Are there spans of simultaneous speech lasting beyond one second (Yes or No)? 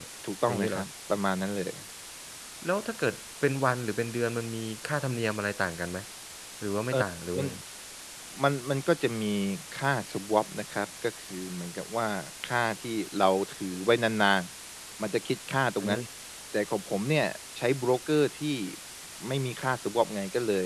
No